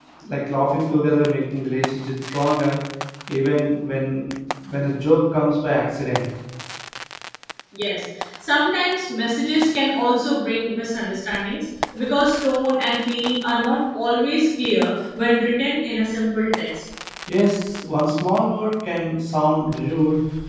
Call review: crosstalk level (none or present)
none